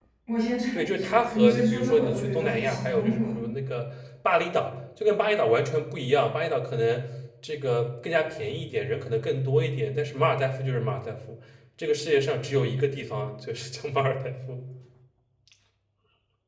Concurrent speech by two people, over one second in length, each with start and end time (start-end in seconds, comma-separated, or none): 0.7-3.4